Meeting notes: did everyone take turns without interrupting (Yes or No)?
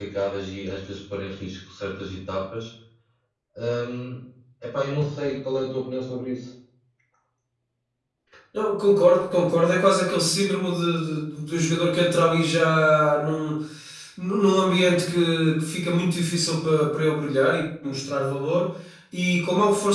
Yes